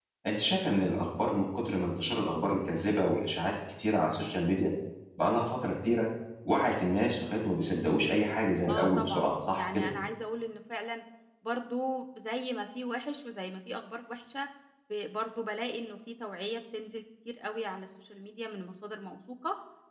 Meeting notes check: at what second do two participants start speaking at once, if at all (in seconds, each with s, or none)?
8.7 s